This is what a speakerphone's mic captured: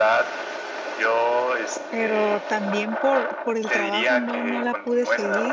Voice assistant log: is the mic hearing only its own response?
No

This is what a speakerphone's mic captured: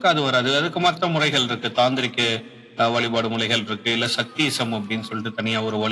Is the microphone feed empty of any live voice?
Yes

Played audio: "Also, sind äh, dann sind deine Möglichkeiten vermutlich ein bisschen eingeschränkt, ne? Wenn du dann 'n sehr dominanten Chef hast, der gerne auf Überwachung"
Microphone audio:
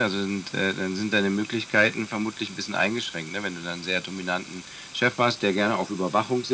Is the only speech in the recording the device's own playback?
Yes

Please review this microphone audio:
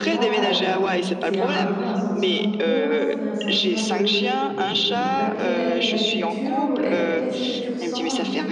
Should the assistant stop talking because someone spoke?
Yes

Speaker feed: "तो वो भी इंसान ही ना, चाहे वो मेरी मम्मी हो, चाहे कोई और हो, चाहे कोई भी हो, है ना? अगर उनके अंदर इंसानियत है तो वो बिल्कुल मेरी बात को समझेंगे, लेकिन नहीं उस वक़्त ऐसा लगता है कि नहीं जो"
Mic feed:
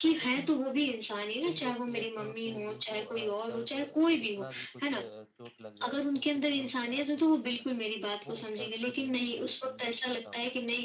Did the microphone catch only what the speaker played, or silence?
No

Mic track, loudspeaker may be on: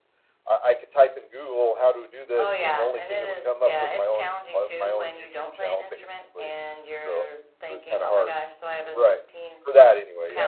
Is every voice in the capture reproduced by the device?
No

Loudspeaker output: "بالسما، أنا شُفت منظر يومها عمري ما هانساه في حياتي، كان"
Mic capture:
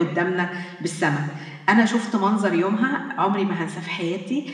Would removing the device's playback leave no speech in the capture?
Yes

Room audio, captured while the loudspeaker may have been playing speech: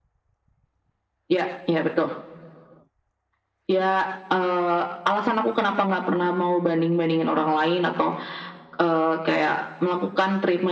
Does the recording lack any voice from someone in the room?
Yes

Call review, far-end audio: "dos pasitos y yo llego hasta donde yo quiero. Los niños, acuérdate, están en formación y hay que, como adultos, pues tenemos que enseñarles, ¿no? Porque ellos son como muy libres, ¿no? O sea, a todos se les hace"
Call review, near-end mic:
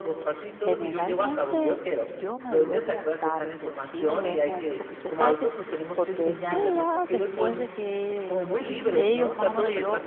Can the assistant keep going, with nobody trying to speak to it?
No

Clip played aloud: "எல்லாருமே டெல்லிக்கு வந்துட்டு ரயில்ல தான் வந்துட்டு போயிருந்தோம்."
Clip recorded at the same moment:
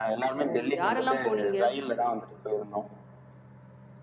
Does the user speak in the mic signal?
Yes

